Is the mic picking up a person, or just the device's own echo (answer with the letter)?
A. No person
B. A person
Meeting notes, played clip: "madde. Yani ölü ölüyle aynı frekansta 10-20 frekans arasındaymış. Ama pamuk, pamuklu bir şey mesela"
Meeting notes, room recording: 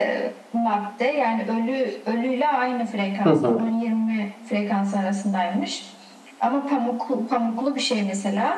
B